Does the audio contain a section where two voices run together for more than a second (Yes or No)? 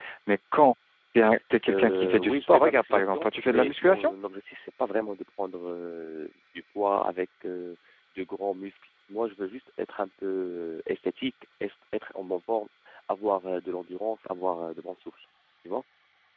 Yes